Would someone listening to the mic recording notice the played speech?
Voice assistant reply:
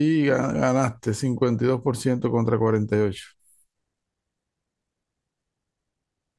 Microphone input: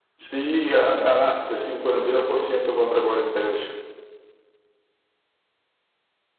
Yes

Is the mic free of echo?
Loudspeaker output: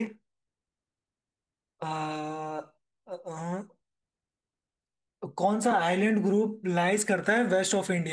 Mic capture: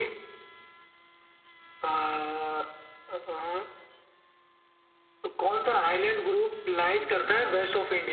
No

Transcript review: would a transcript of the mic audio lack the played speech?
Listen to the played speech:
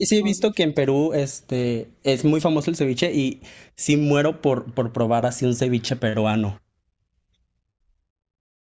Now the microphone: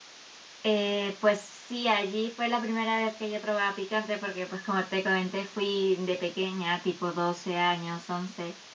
Yes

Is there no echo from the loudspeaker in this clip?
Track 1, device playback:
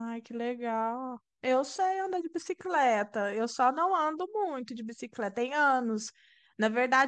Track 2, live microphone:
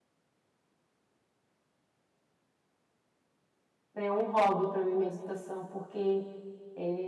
Yes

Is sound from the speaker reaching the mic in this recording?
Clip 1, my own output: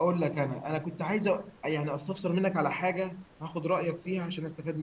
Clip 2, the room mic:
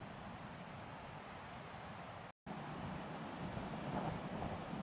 No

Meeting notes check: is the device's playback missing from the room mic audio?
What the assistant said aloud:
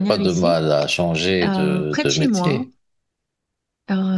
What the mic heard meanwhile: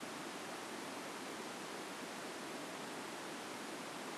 Yes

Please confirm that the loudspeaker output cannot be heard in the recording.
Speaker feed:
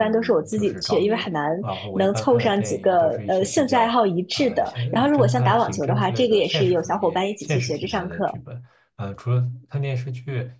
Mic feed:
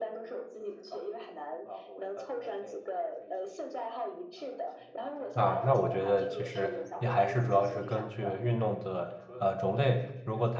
No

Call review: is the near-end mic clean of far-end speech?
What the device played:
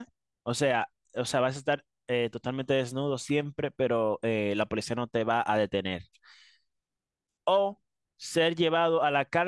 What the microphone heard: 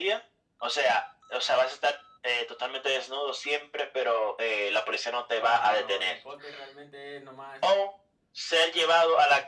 No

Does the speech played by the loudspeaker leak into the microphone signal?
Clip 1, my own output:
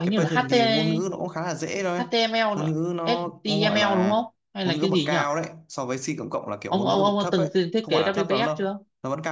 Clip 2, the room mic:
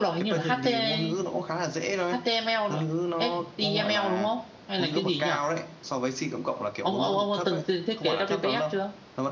Yes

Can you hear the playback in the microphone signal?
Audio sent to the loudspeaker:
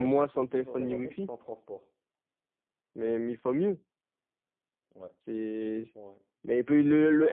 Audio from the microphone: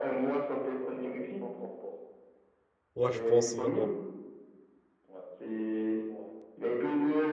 Yes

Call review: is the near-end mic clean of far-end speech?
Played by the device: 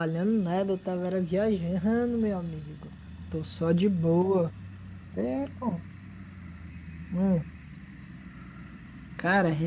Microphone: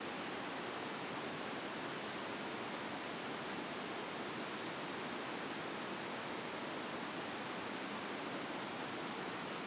Yes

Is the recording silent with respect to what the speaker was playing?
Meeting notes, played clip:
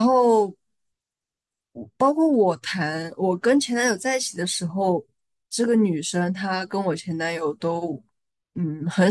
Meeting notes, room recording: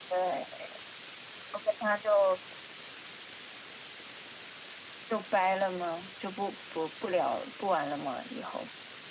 Yes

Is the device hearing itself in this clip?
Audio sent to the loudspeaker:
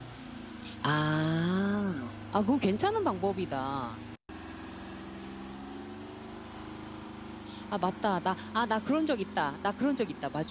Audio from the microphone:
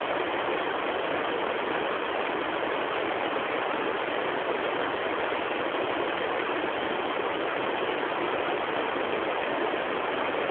No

